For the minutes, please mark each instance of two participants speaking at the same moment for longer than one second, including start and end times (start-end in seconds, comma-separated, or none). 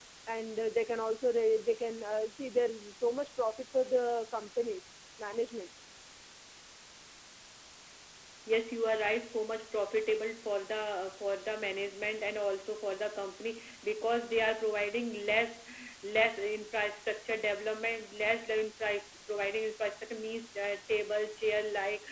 none